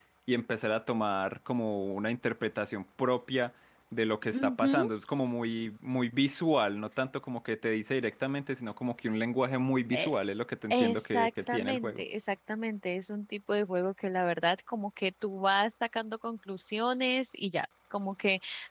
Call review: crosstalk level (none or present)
present